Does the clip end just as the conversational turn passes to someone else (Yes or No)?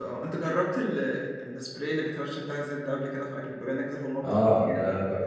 Yes